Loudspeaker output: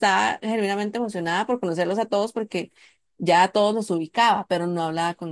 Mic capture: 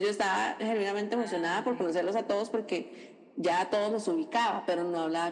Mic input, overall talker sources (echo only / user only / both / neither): both